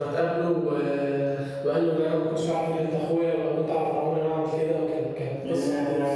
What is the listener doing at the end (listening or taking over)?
taking over